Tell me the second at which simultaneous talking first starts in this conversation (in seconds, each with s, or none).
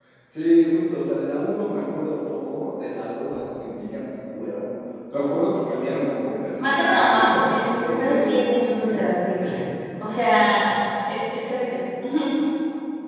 6.6 s